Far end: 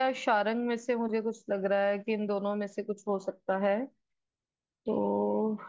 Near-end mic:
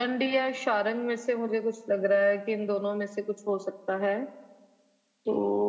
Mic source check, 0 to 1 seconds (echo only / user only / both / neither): echo only